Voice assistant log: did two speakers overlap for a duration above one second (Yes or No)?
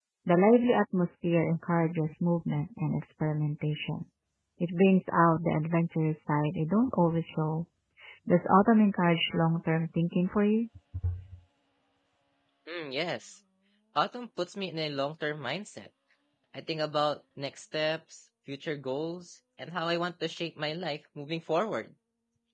No